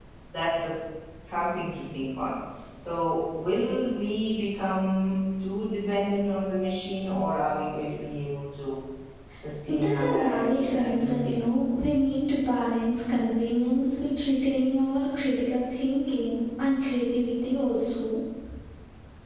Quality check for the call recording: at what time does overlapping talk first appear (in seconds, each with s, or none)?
9.7 s